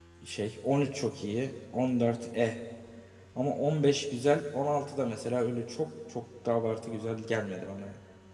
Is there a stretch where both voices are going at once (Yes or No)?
No